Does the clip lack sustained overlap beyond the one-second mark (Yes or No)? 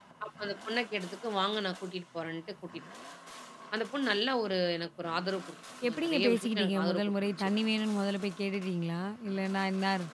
No